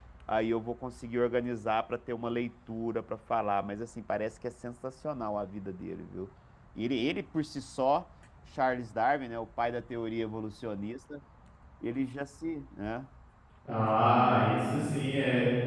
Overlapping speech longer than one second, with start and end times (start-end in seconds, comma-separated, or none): none